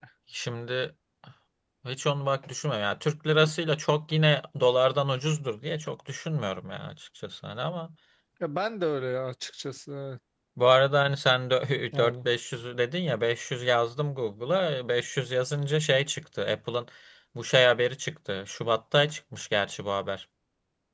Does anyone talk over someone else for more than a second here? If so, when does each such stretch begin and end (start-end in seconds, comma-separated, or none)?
none